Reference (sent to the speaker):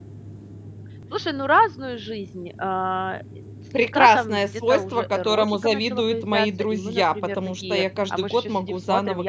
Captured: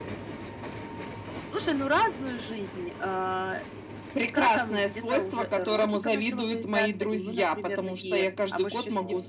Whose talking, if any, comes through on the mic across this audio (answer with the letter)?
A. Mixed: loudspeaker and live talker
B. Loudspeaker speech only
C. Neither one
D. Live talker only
B